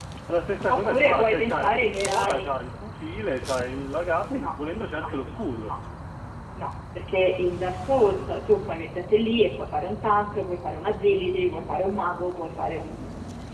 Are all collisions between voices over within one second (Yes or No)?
No